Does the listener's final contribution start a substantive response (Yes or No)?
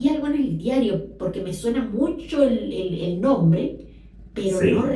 No